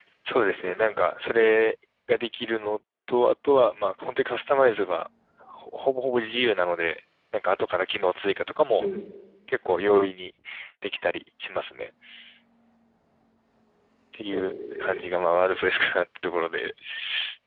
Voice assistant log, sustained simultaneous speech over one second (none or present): present